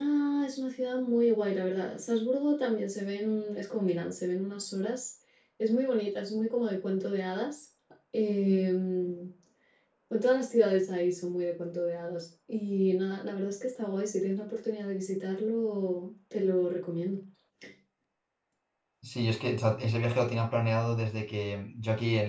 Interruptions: none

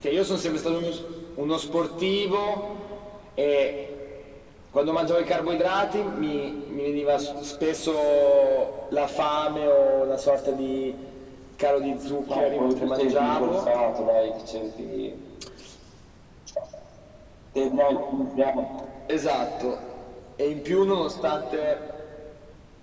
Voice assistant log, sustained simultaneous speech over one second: present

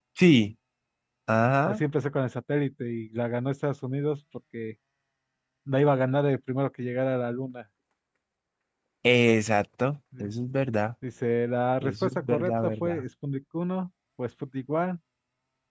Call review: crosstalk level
present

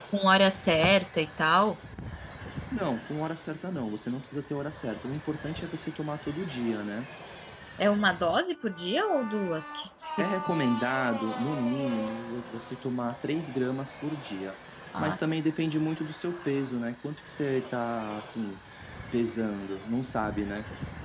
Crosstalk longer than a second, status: none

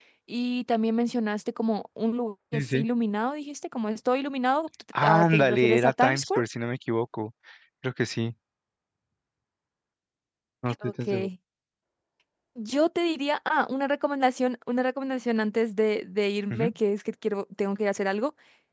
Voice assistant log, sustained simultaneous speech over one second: present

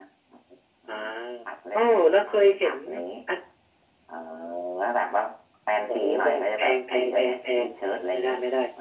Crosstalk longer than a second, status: present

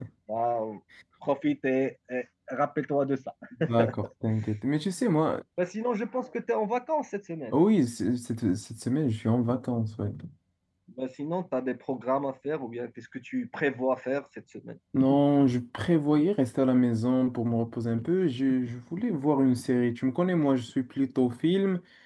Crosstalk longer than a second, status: none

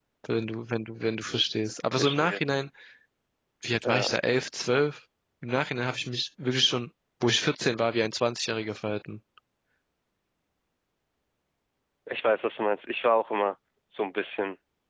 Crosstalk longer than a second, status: none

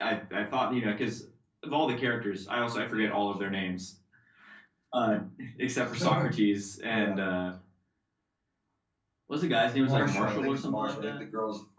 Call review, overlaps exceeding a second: present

